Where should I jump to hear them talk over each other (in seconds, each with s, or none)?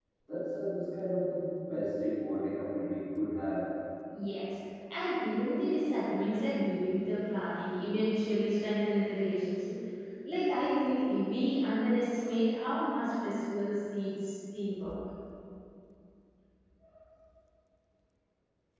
none